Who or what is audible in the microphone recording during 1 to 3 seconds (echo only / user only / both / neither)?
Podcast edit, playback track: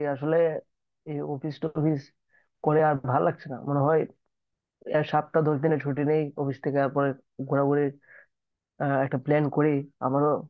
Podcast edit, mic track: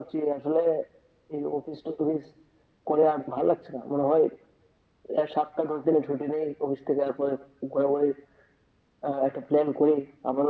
echo only